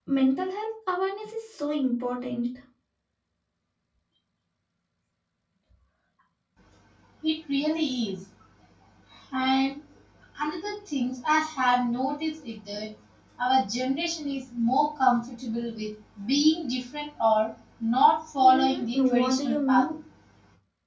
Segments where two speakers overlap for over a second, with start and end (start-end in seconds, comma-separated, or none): 18.4-19.8